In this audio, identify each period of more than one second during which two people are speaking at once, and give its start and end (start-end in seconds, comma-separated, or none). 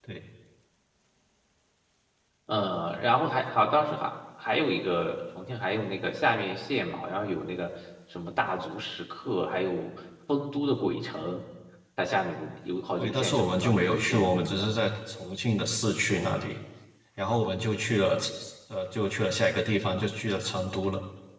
13.0-14.7